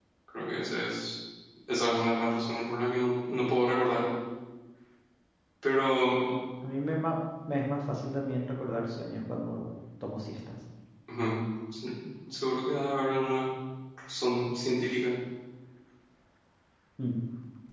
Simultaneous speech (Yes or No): No